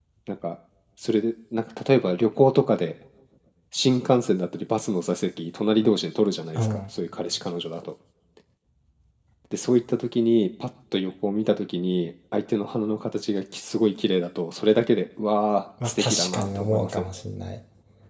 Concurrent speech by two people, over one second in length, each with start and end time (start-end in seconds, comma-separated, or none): 15.8-17.1